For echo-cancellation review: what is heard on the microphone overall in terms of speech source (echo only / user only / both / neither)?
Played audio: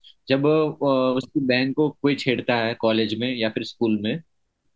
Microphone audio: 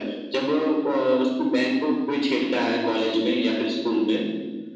echo only